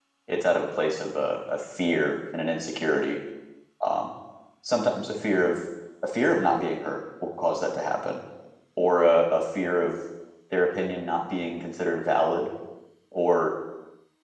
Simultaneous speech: No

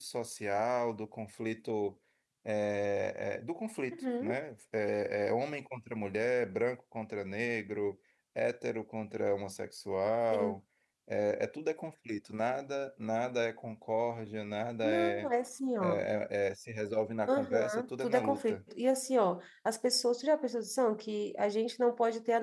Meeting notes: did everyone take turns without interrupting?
No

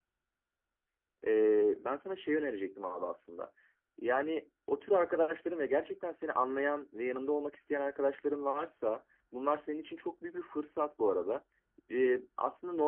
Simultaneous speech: No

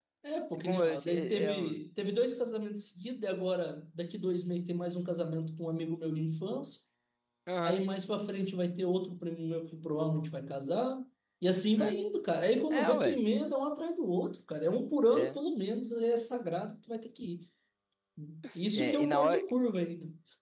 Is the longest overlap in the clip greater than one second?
Yes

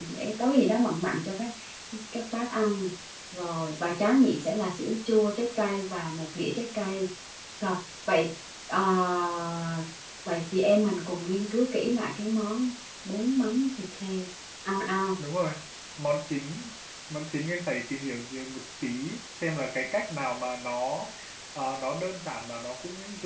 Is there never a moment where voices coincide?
Yes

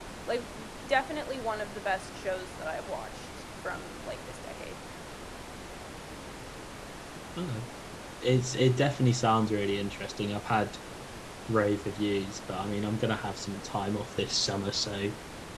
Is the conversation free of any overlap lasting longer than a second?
Yes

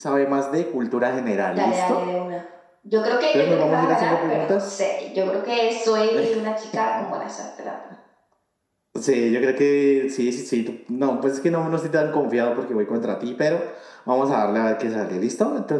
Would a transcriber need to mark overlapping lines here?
Yes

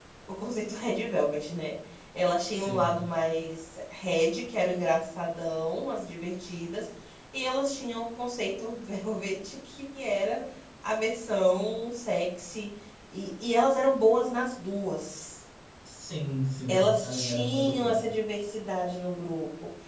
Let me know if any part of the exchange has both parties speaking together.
Yes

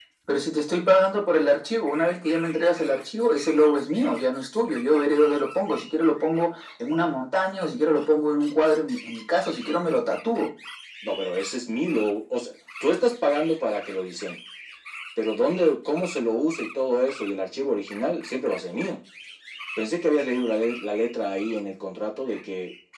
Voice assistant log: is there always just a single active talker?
Yes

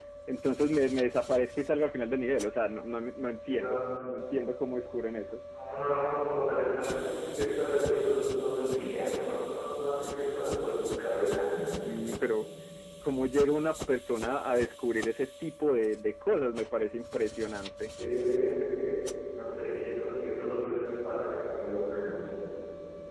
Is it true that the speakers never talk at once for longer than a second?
Yes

